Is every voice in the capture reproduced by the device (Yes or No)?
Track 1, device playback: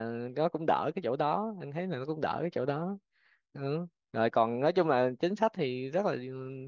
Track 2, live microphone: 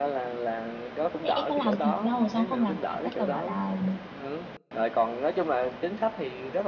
No